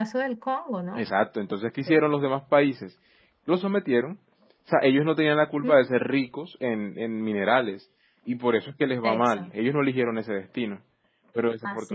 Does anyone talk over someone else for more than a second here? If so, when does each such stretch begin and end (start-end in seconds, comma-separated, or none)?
none